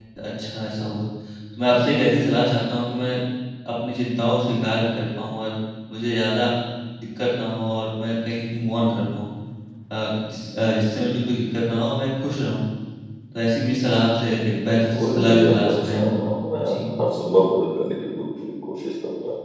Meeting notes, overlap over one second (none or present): present